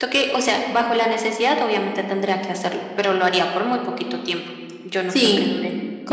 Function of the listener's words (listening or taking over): taking over